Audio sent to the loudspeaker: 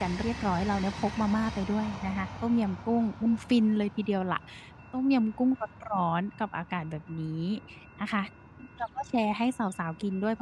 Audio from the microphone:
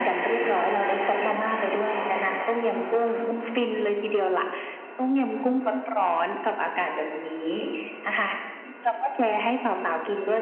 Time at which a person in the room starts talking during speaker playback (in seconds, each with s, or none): none